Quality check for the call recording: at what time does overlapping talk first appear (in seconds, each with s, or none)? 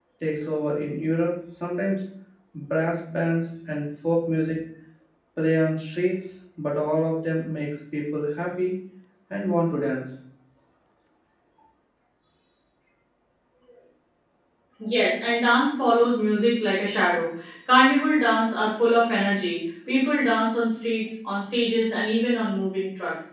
none